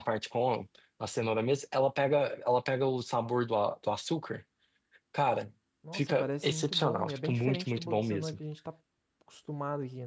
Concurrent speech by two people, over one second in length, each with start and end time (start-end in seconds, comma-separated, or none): 5.9-8.4